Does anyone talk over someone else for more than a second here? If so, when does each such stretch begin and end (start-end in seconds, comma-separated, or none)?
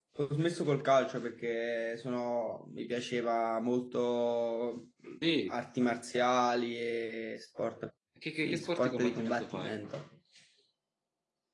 8.4-9.7